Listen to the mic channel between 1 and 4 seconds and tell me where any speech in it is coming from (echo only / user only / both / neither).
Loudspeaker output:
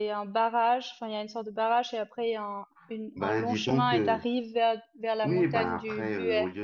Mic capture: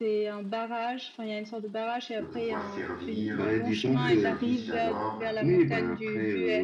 both